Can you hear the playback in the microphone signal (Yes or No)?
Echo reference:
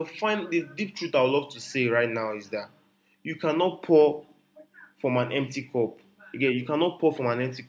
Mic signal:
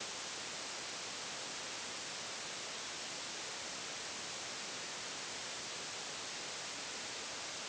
No